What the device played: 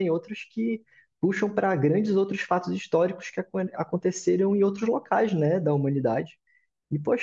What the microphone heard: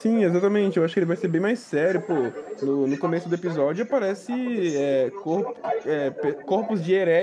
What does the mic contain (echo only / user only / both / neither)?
both